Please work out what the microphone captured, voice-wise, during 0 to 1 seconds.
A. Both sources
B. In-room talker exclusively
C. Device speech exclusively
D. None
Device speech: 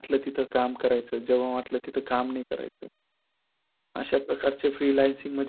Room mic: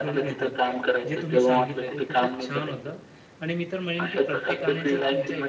A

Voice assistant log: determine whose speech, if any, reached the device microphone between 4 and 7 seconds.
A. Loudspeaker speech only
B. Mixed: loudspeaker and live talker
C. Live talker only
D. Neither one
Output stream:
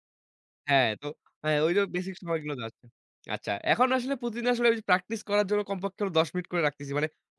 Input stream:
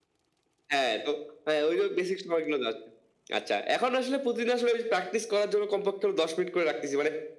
A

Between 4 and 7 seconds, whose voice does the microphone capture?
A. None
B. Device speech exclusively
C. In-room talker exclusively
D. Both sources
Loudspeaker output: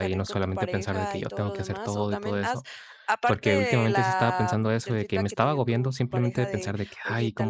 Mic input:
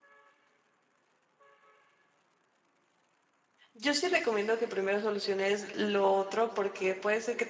C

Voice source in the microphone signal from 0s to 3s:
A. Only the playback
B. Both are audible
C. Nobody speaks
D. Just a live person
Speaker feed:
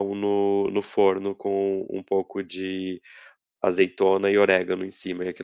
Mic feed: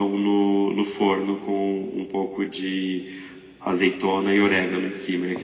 A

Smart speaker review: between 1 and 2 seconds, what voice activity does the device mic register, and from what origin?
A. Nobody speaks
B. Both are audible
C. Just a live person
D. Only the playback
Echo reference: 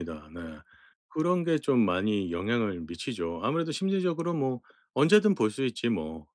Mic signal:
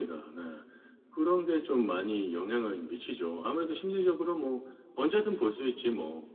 D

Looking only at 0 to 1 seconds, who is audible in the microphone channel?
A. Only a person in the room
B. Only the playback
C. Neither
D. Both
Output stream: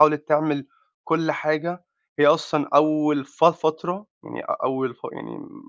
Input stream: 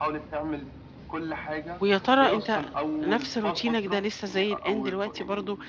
B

